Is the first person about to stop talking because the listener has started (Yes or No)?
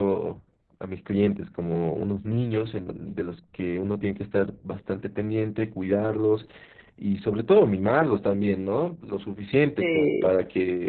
No